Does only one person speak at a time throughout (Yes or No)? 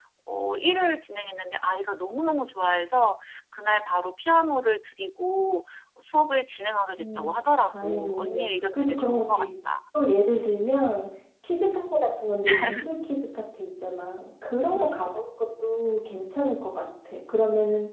No